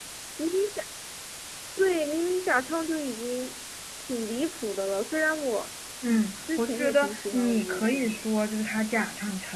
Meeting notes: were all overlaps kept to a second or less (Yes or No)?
No